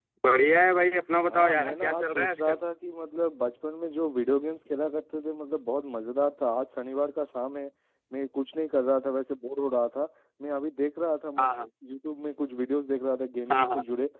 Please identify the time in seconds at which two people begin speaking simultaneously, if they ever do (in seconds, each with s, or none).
1.3 s